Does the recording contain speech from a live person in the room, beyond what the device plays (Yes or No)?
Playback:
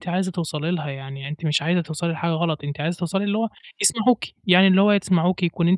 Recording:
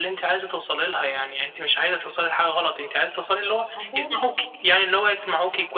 Yes